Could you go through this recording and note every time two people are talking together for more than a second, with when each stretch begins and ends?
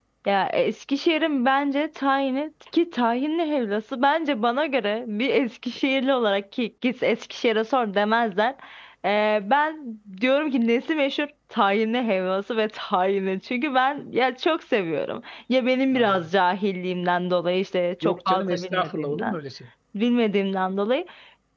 18.0-19.4

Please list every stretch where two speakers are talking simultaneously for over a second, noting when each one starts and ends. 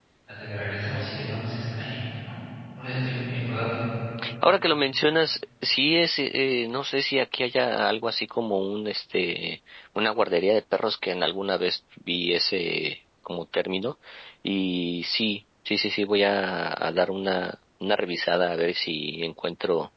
none

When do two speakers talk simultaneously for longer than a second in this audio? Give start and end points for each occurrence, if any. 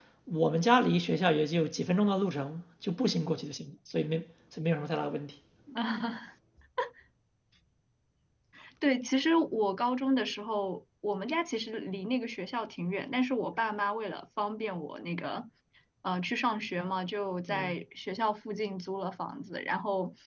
none

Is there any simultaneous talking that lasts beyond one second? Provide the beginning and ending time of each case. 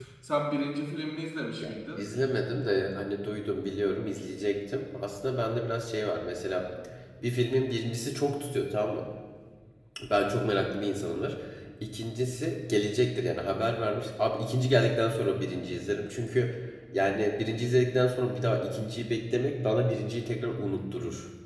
none

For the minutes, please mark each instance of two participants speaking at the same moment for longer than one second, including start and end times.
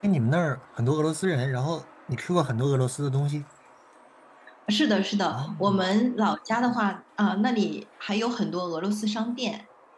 none

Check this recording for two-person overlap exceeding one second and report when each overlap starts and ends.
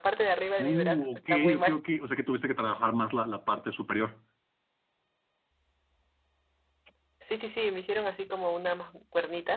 0.6-1.8

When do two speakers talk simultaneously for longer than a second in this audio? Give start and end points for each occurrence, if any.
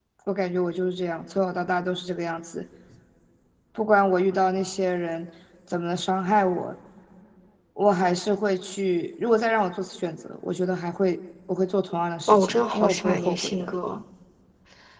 12.3-13.7

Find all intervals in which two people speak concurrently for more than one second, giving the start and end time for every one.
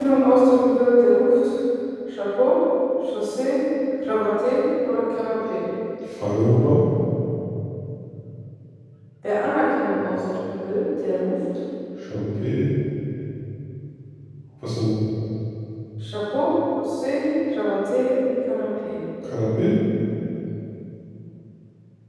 none

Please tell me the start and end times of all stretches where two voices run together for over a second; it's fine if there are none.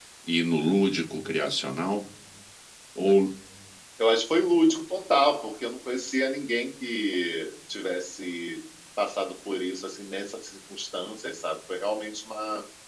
none

